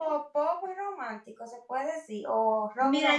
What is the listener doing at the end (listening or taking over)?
taking over